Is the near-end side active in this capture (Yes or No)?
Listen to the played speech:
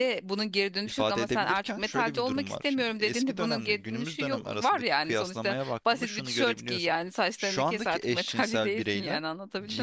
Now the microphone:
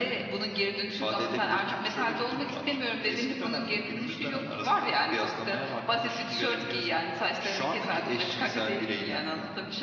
No